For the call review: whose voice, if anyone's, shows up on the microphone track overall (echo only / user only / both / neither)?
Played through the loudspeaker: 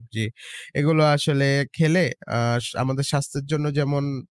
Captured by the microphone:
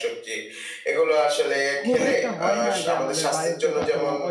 both